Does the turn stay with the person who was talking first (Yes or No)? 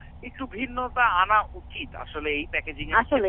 No